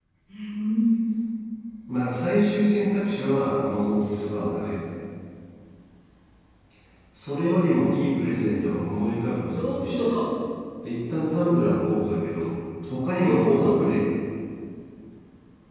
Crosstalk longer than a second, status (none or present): none